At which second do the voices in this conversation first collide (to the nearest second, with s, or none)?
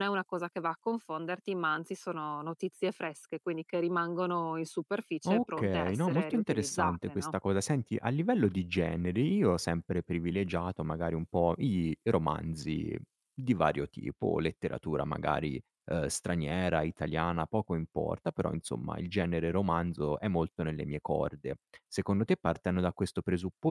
5 s